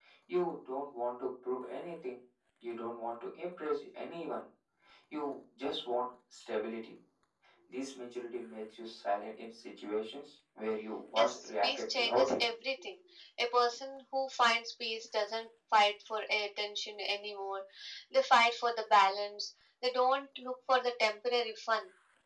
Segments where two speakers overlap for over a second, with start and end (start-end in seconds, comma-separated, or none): 11.2-12.4